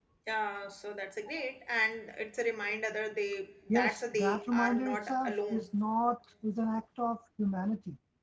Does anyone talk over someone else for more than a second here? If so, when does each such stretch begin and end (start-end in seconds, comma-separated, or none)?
3.7-5.6